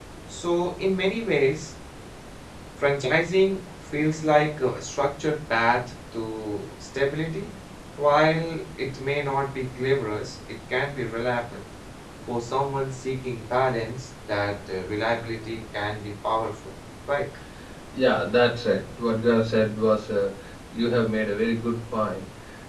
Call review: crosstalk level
none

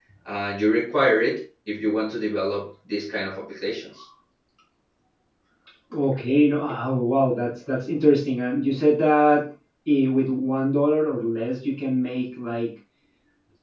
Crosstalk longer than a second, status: none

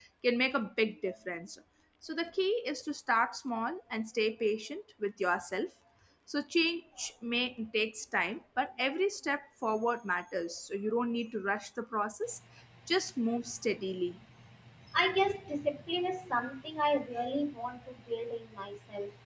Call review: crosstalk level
none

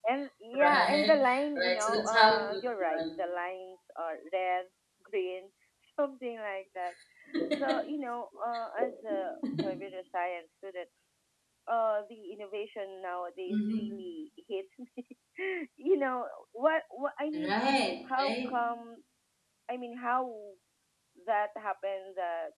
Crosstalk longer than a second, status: present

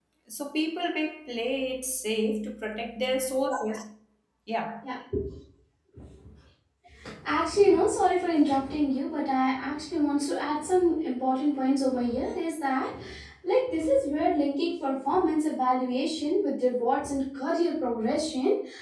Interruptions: none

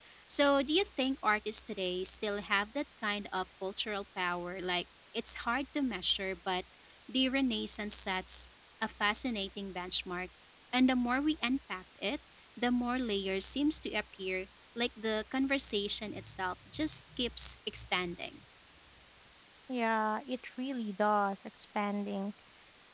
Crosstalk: none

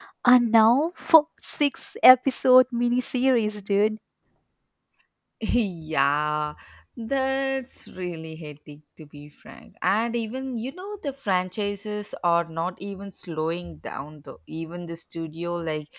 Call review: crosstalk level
none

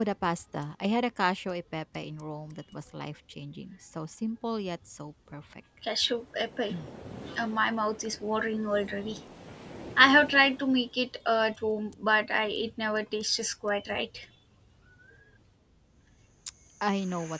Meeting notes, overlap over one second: none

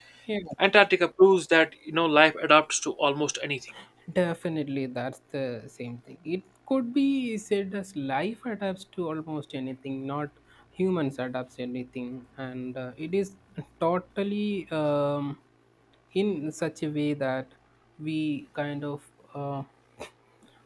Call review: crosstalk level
none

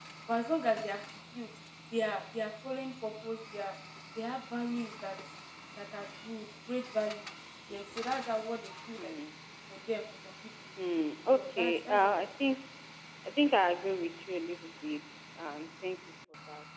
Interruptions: present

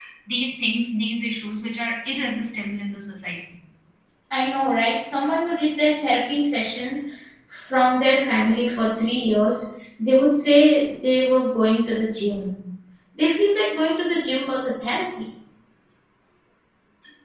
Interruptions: none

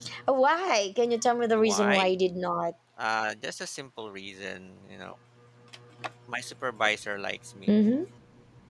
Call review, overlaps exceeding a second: none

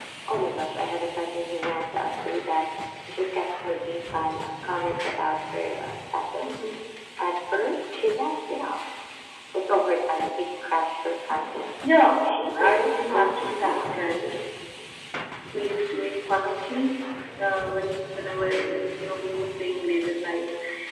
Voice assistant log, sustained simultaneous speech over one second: present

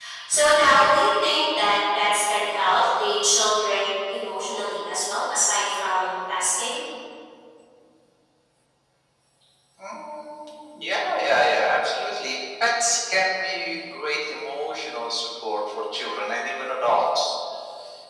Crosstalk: none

